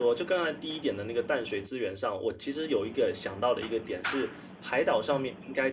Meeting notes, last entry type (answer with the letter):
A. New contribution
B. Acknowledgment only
B